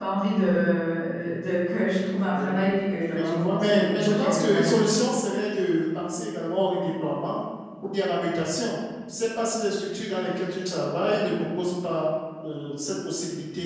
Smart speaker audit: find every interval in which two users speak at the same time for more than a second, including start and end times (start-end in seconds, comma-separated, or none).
3.1-4.8